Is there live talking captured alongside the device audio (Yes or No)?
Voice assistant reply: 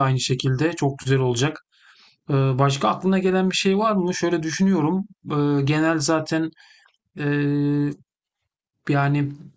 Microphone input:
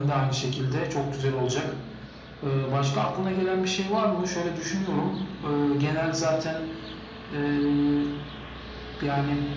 No